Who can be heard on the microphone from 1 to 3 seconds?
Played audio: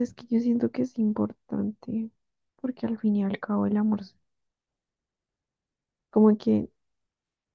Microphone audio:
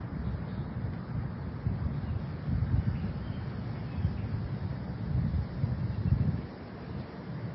neither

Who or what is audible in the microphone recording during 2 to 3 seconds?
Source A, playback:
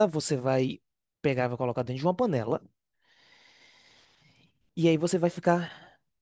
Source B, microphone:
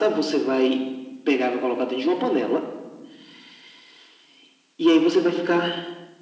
echo only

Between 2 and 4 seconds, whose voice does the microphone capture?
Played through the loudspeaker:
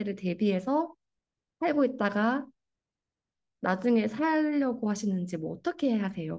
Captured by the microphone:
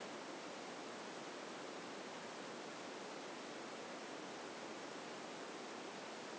neither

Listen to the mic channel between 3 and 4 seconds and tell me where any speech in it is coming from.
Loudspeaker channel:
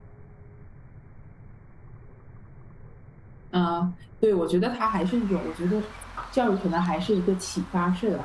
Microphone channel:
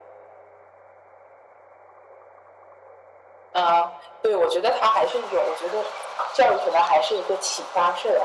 echo only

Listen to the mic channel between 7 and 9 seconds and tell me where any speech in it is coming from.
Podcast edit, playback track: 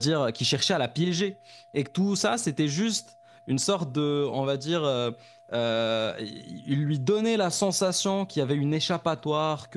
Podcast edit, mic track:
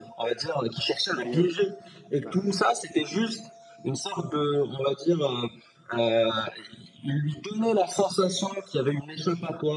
echo only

